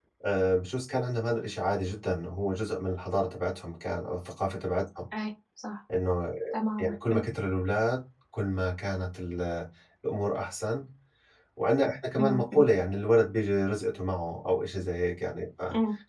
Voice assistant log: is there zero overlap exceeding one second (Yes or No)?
Yes